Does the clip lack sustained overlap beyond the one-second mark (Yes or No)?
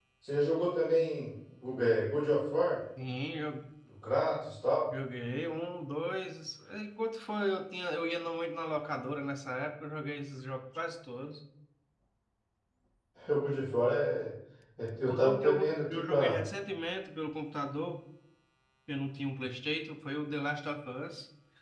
No